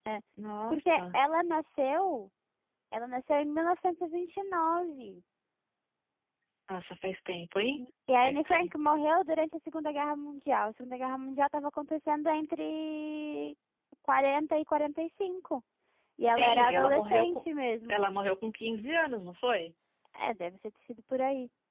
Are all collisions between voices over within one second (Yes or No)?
No